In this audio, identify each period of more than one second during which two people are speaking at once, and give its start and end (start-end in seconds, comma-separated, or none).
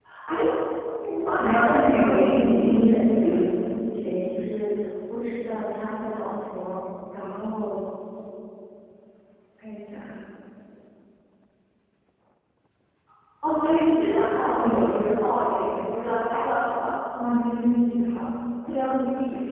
1.4-3.0